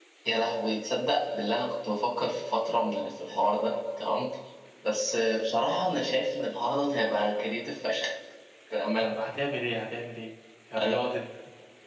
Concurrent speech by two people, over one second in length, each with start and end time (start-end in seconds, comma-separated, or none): none